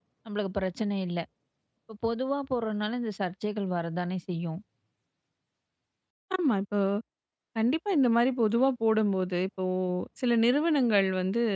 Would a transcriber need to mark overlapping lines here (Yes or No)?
No